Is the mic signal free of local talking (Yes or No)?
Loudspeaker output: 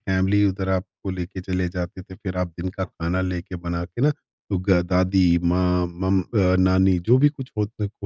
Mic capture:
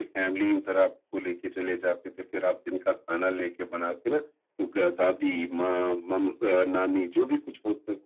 Yes